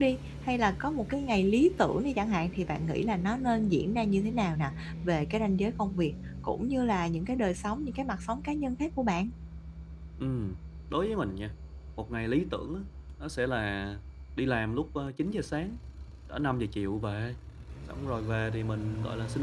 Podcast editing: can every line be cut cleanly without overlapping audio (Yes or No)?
Yes